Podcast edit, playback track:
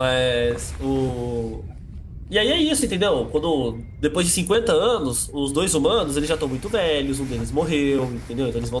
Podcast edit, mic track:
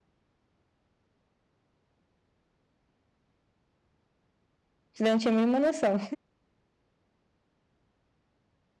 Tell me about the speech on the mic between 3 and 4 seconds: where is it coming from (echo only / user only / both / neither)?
neither